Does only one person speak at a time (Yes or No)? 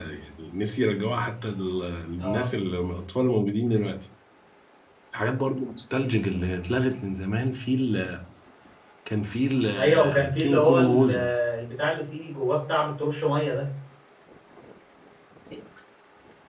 No